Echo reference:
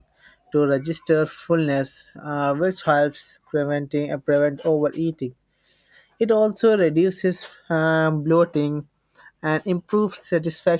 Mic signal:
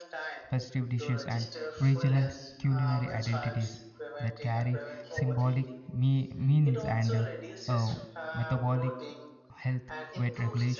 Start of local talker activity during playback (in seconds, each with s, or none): 0.5 s